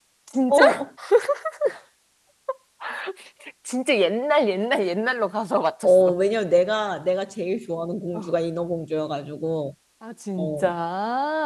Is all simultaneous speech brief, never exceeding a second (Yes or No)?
Yes